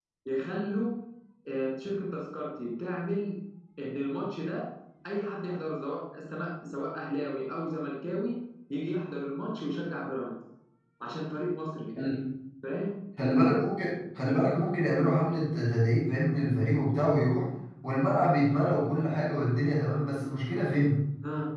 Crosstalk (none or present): none